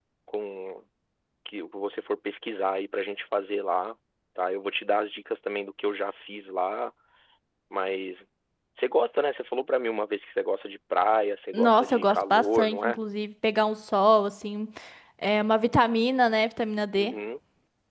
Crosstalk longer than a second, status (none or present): present